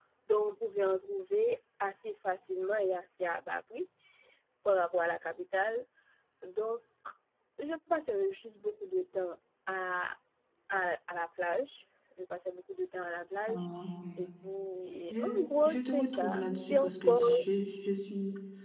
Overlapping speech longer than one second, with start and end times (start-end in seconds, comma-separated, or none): 15.1-17.2